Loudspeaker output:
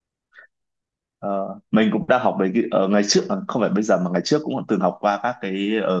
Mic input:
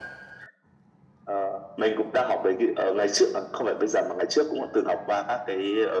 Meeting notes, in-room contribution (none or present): none